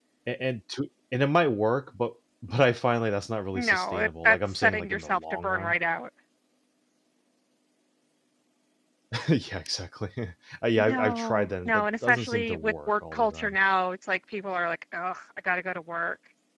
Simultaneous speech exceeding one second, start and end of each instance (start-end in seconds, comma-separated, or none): 3.6-5.7, 10.8-13.6